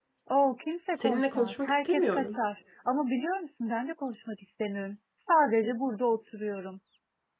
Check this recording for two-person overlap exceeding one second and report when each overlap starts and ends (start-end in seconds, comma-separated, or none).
1.0-2.4